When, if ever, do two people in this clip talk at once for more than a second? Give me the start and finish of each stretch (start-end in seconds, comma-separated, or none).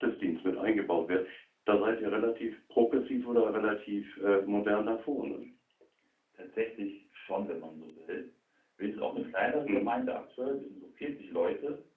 none